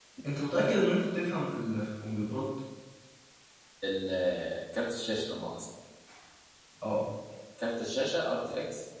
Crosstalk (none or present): none